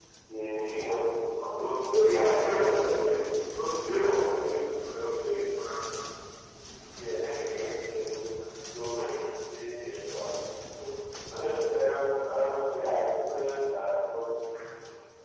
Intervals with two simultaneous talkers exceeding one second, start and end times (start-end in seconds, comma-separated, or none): 1.6-3.1